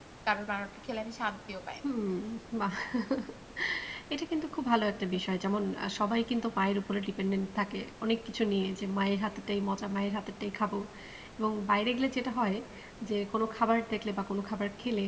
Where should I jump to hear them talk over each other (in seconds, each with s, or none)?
none